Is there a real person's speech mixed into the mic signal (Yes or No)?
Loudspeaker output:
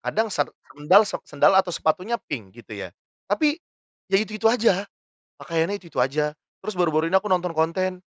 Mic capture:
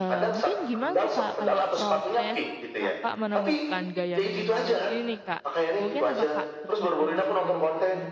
Yes